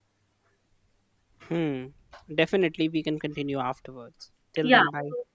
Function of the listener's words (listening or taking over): taking over